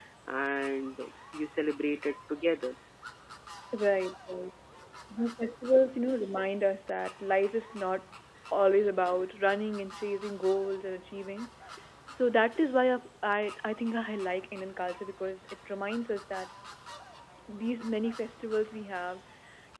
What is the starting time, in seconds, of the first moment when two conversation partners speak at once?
none

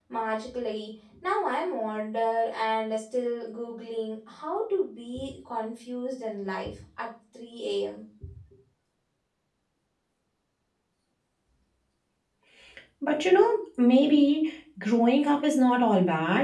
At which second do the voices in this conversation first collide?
none

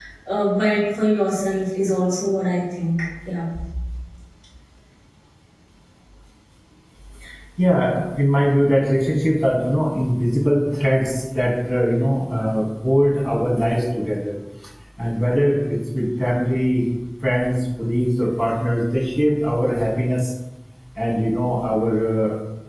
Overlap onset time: none

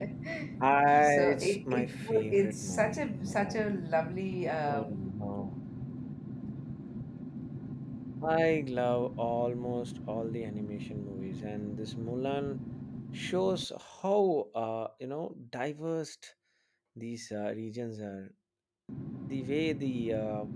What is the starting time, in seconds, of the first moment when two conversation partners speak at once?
1 s

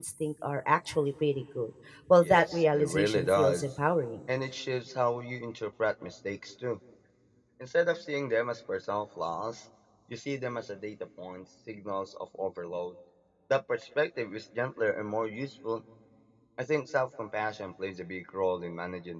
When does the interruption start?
2 s

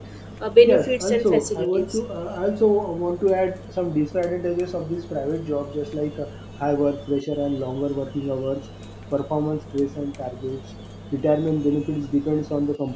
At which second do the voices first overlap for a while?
1 s

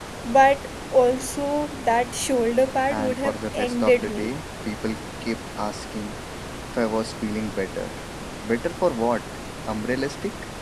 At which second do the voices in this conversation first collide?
3 s

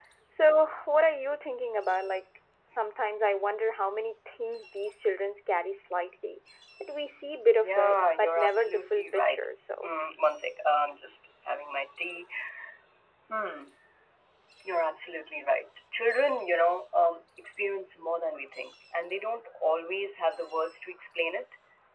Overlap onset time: 8 s

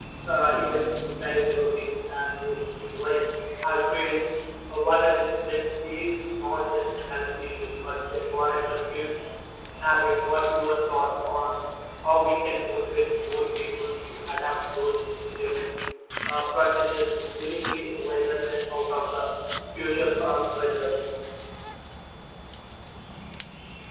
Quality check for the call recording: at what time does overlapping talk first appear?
none

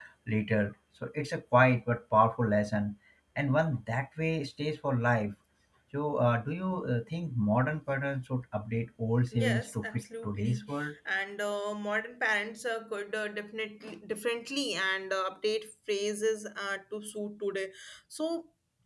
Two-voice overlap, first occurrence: 9 s

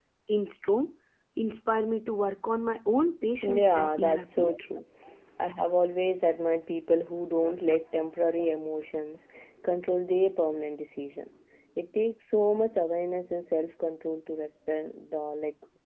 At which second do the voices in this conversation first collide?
3 s

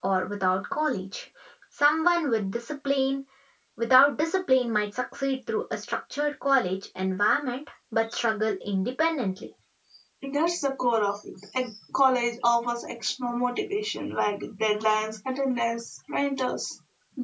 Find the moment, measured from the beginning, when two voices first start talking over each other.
none

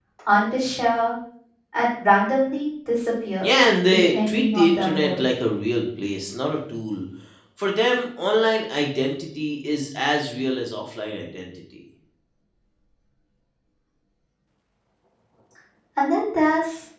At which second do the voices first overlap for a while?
4 s

